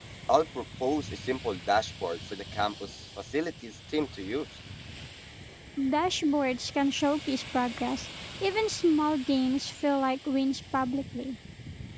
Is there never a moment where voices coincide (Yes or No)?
Yes